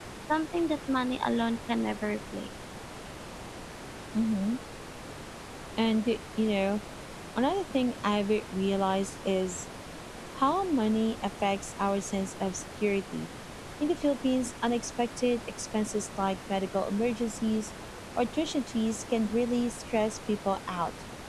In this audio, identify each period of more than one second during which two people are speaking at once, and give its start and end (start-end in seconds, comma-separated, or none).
none